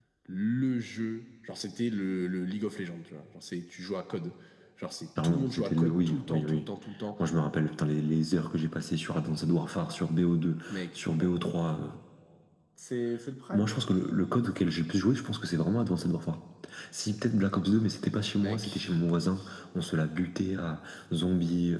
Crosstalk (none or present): present